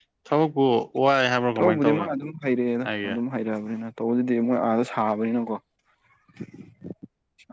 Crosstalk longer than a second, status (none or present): none